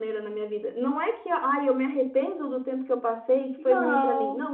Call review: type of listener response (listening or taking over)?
listening